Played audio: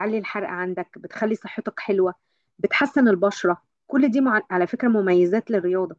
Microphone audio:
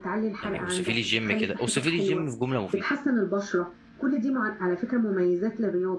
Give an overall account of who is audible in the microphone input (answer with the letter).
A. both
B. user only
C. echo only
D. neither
A